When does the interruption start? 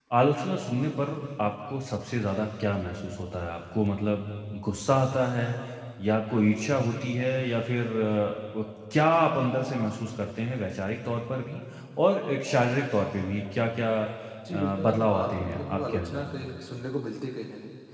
15 s

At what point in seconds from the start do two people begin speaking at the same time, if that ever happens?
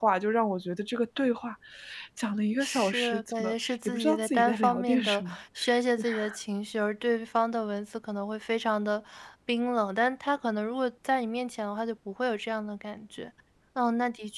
3 s

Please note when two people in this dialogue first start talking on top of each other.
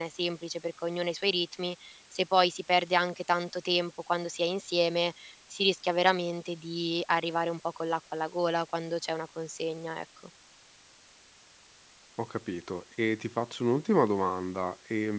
none

